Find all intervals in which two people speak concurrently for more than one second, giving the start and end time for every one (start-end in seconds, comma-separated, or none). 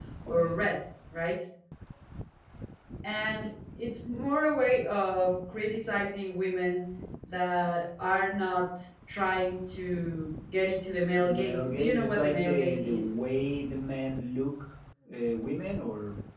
11.2-13.1